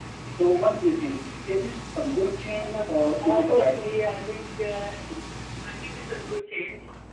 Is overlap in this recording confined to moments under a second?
No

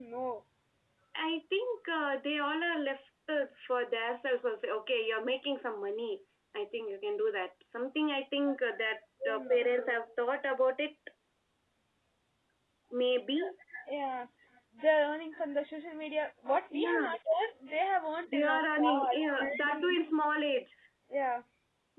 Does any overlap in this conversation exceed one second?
Yes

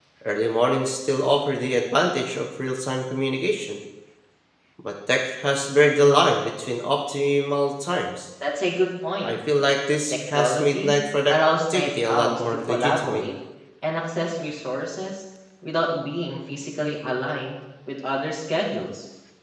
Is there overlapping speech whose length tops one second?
Yes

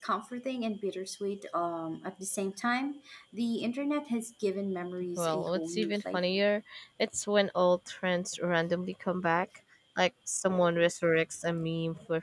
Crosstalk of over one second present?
Yes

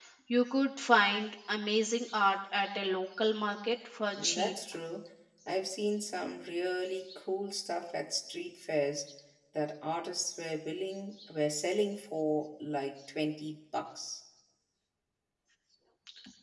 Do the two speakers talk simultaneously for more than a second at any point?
No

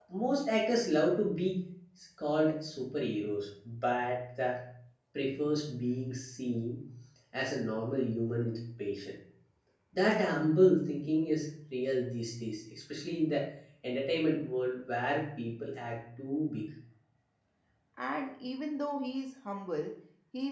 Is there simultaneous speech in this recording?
No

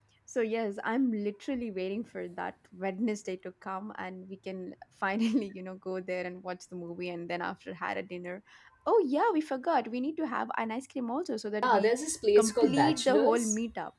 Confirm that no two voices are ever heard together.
No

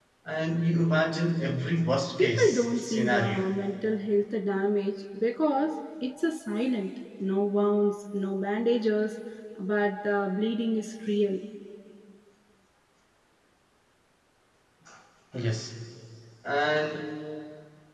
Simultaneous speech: Yes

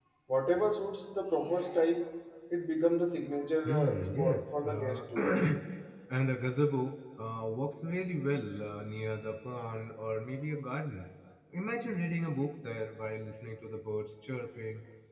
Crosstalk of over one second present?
Yes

